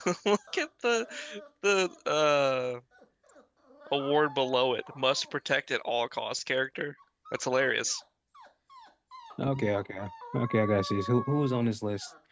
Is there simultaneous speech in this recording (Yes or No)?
No